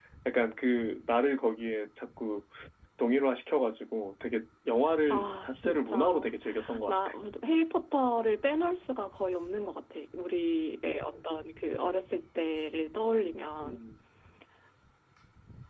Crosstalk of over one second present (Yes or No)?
Yes